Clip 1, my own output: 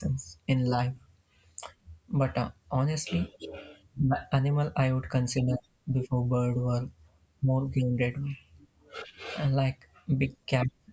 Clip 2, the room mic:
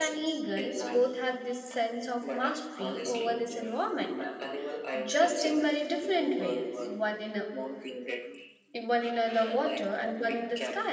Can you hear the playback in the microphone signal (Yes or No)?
Yes